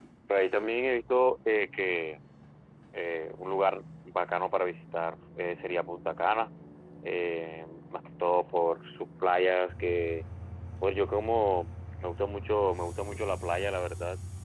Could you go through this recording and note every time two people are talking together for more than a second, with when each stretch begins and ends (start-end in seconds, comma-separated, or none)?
none